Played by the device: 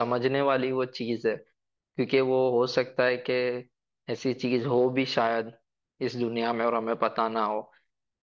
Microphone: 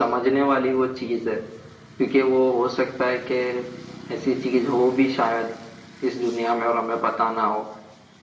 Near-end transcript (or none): none